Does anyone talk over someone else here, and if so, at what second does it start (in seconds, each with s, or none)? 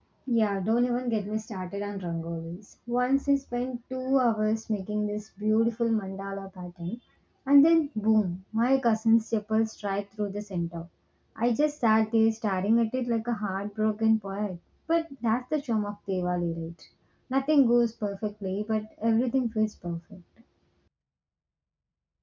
none